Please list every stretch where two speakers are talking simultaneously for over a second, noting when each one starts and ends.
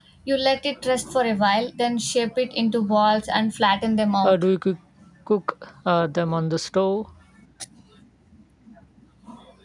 none

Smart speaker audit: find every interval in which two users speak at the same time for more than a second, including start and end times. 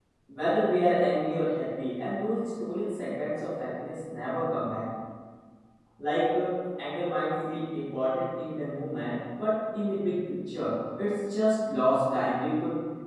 none

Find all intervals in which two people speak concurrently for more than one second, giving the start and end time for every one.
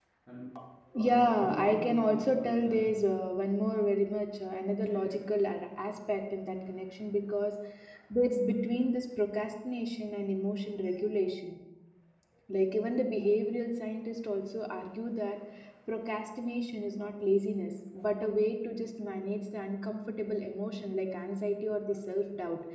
1.1-2.9

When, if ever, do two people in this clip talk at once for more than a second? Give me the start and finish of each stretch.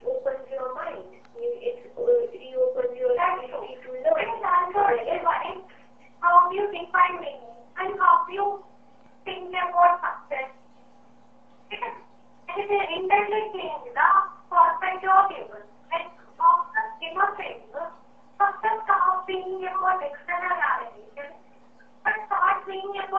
4.2-5.4

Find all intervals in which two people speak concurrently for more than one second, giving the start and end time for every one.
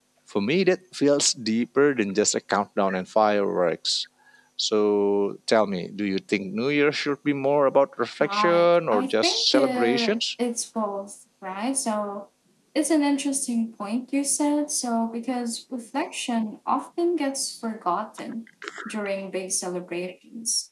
8.2-10.2

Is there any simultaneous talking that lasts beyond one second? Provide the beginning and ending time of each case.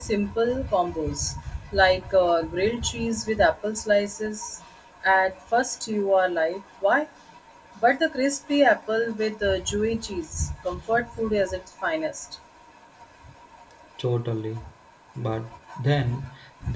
none

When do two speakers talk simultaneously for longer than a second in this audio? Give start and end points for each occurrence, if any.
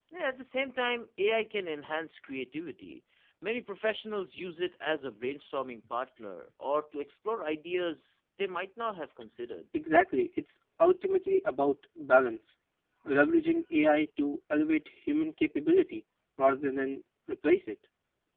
none

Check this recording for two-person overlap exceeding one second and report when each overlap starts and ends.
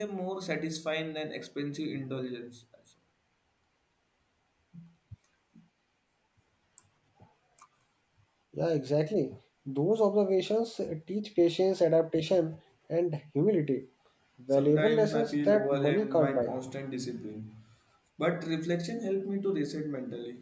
14.5-16.5

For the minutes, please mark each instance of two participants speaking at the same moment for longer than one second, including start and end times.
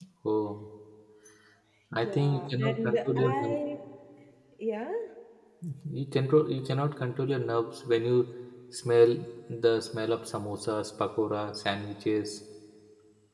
1.9-3.6

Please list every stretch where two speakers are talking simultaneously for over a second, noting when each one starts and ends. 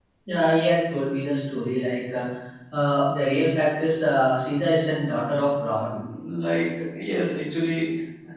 none

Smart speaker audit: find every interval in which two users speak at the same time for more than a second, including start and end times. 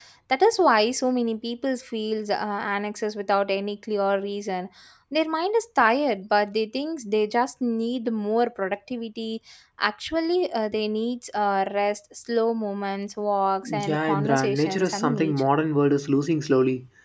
13.6-15.5

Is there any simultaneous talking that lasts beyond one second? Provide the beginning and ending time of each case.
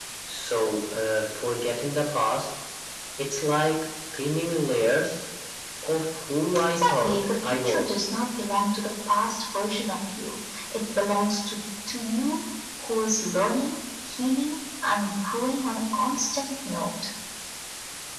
6.7-8.0

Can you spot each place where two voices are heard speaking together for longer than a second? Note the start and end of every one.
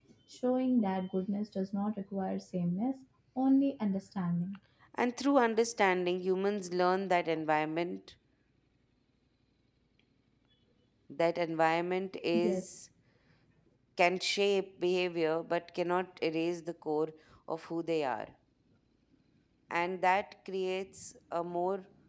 none

